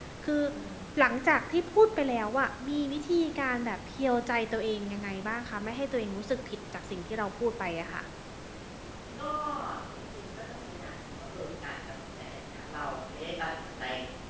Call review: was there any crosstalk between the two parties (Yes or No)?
No